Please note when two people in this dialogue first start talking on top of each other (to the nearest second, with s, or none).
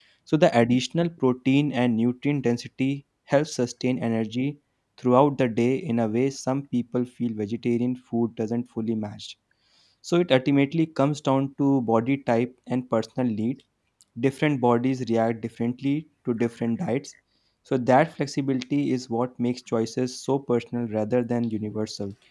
none